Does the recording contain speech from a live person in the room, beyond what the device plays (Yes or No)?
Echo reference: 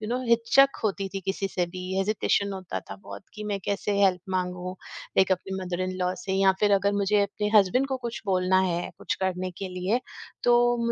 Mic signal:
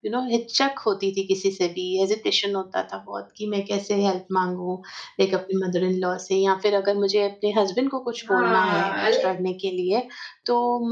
Yes